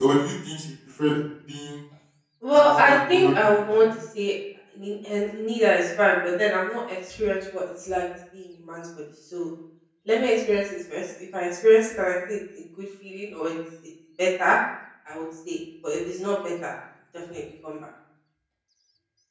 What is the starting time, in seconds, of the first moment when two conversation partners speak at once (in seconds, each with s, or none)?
2.6 s